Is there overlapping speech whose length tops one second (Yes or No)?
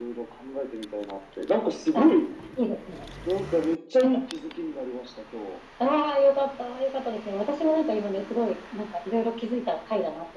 No